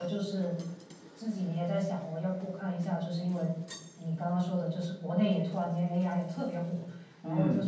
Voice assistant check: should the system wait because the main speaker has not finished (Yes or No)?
Yes